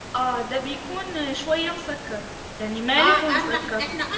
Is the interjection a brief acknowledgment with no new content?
No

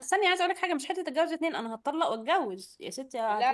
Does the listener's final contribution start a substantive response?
Yes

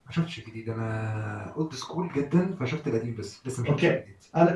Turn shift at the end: Yes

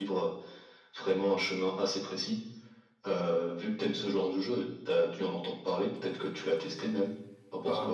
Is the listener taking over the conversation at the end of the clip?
Yes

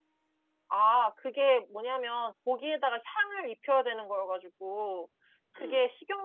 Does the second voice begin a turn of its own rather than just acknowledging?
No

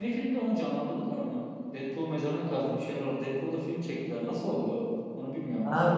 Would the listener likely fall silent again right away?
No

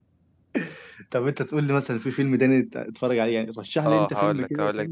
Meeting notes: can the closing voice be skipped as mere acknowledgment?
No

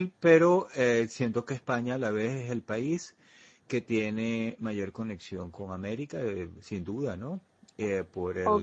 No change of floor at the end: No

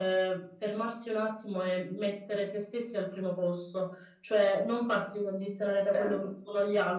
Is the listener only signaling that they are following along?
Yes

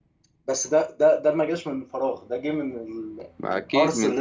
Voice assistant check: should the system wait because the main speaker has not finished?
No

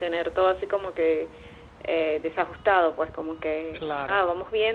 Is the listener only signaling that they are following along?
Yes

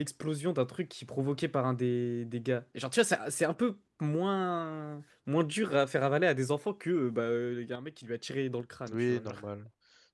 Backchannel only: No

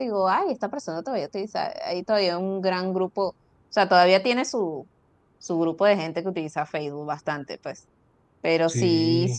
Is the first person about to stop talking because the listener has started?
No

